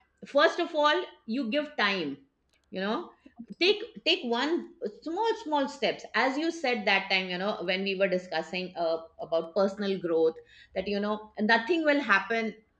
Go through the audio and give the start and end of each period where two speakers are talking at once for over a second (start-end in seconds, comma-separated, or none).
none